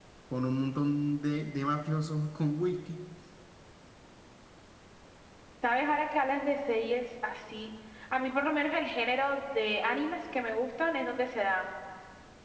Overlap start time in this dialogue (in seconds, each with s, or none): none